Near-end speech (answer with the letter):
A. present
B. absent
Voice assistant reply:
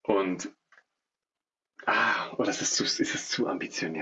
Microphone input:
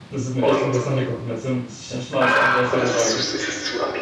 A